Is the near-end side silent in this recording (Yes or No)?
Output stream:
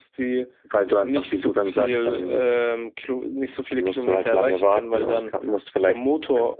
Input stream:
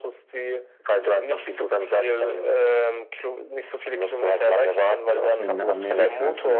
No